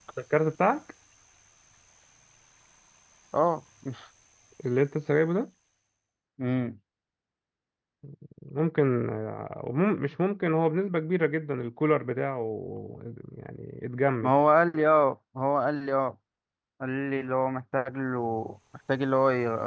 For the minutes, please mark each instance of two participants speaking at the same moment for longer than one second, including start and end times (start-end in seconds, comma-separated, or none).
none